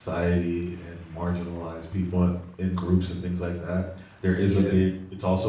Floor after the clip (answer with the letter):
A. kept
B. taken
A